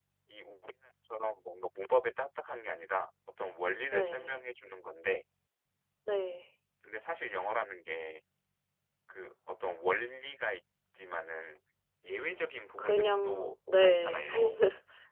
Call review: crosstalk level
present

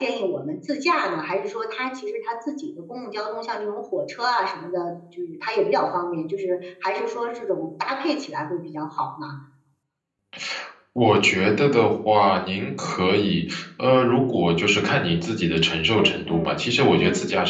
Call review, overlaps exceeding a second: present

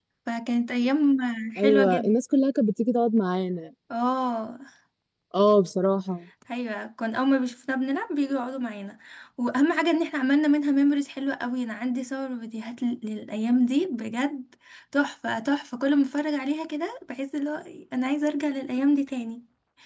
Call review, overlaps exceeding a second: none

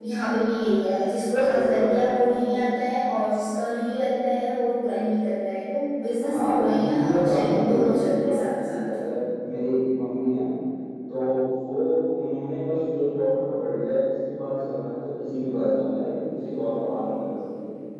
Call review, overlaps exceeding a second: present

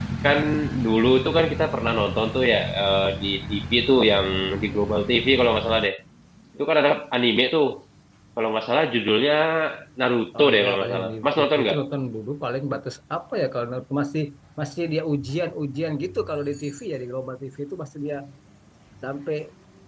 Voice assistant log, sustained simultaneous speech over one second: present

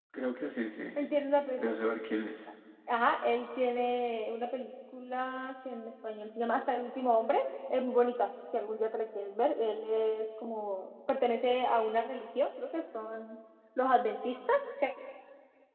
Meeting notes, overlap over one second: none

